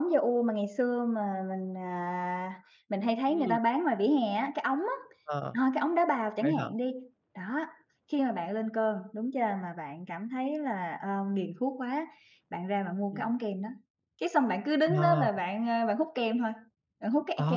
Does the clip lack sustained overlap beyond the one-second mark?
Yes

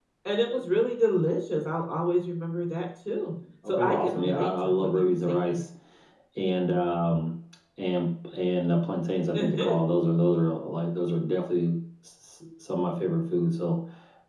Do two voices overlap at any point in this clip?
Yes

